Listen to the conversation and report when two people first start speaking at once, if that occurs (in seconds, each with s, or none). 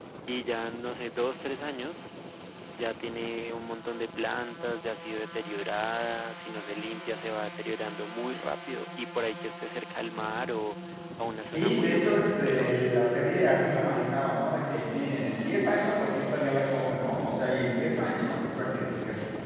11.5 s